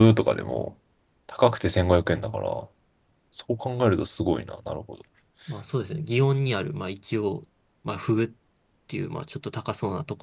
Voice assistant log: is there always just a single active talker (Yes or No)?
Yes